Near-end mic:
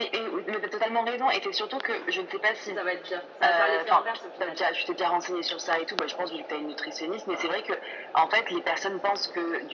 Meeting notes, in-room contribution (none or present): present